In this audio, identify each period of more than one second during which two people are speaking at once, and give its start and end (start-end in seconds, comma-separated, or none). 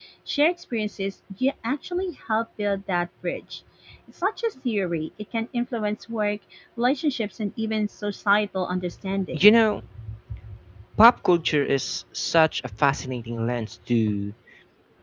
none